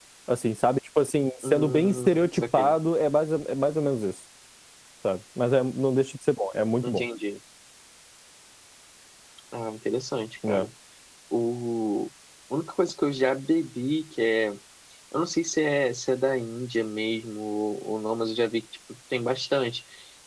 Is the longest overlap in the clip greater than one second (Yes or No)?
Yes